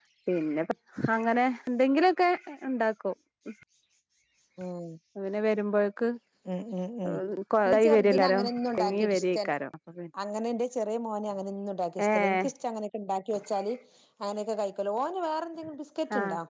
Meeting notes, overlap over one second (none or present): present